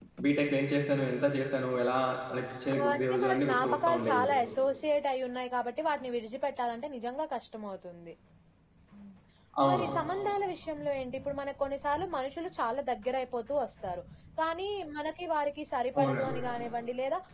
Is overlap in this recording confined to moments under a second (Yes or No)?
No